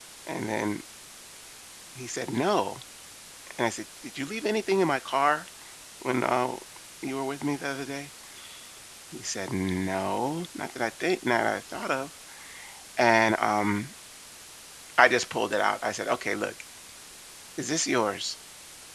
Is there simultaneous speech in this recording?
No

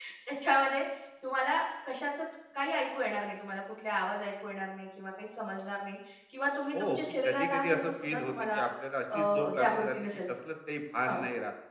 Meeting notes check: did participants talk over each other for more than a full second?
Yes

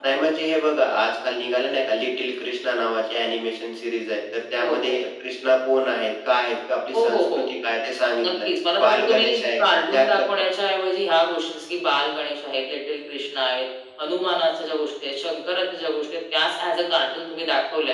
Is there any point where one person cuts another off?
Yes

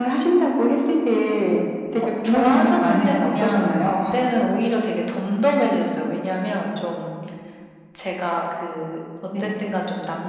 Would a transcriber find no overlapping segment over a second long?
No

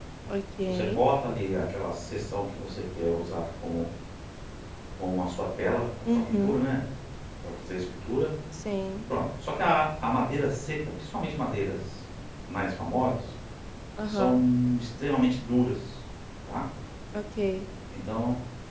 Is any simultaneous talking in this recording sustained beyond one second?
No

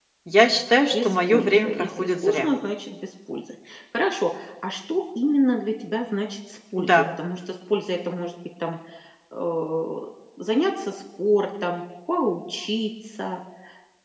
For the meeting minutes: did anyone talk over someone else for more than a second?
Yes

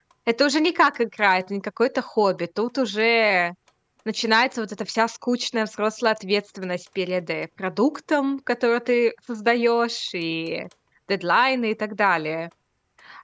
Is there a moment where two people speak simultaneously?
No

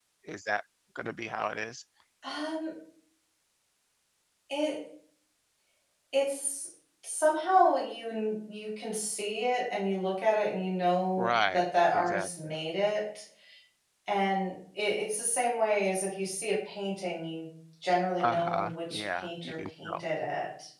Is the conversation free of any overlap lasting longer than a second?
No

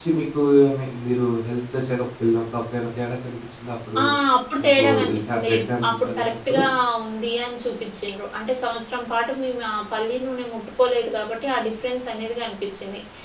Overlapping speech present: Yes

